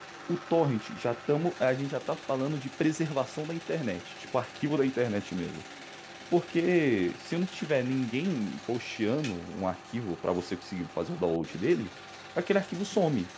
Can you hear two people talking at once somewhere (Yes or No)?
No